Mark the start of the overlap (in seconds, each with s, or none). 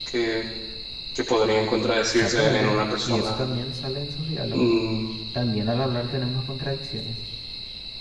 2.1 s